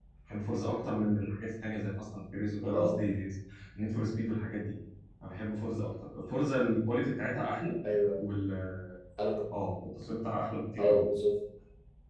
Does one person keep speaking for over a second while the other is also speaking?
No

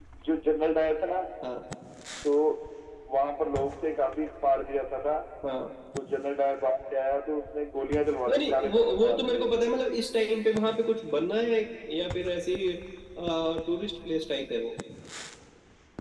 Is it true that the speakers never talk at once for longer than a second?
No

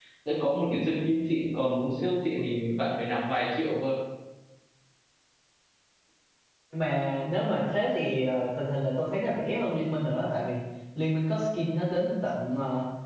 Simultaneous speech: No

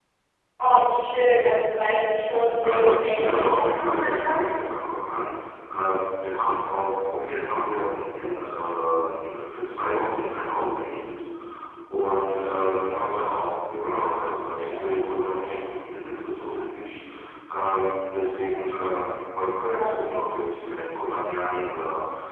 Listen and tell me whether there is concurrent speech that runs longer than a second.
Yes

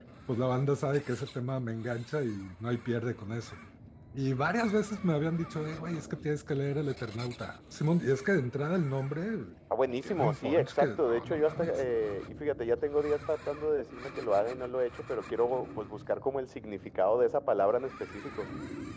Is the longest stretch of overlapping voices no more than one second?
No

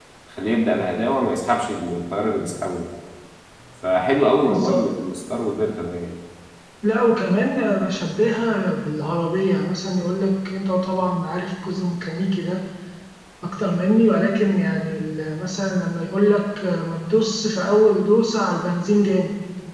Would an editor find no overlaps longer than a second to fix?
Yes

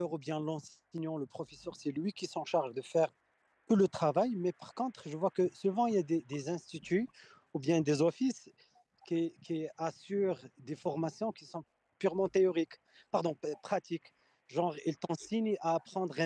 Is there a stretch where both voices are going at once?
No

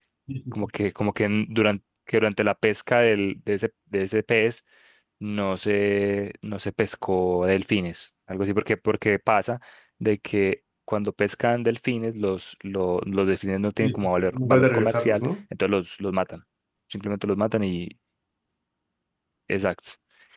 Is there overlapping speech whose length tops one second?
Yes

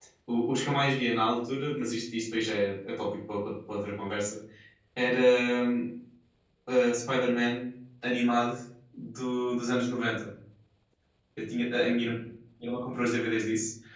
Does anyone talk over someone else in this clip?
No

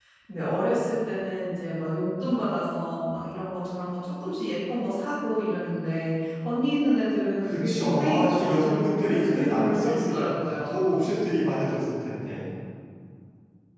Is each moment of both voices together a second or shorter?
No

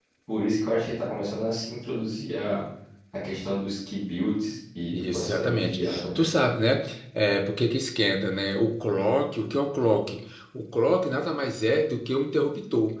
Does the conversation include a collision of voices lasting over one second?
Yes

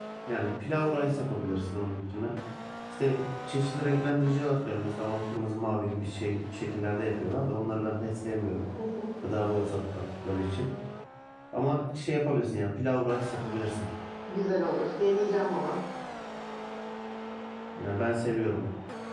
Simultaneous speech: No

